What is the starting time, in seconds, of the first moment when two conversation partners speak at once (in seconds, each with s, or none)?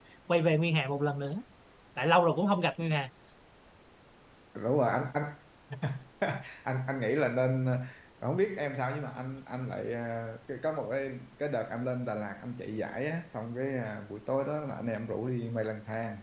none